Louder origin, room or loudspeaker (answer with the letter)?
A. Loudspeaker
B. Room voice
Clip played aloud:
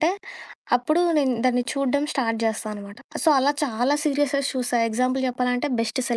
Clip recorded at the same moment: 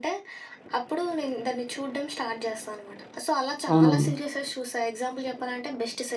B